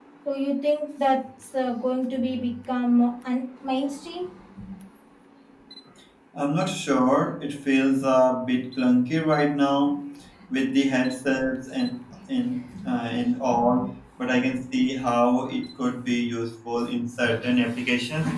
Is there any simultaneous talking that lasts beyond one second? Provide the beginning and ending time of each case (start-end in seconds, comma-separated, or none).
none